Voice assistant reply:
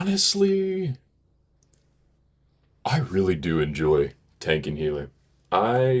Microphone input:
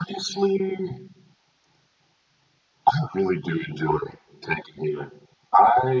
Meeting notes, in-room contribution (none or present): none